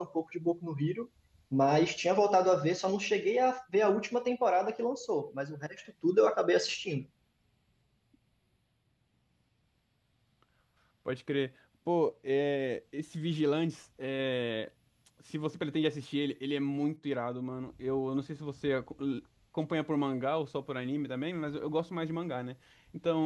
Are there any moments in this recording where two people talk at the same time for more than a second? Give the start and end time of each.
none

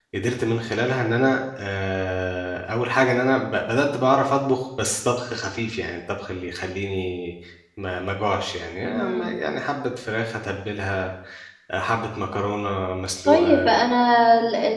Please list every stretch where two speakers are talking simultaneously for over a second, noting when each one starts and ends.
none

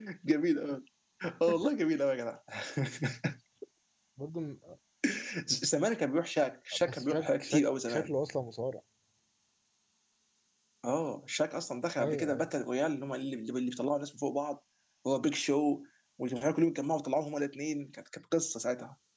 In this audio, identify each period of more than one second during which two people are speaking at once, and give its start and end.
6.8-8.1

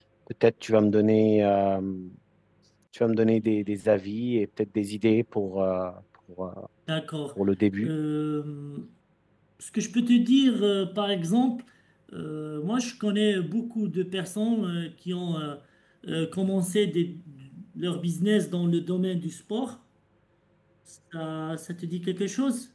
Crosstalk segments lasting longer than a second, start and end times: none

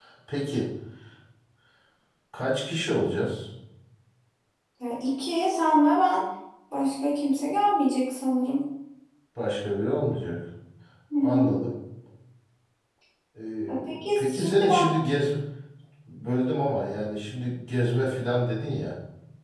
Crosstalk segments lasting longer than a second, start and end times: 13.7-14.9

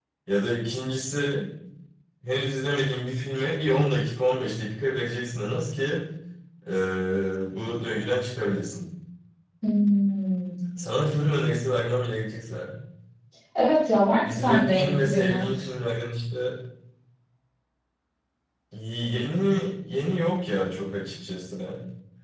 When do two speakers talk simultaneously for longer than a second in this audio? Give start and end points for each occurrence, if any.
14.2-15.7

